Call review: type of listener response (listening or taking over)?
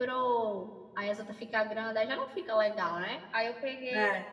listening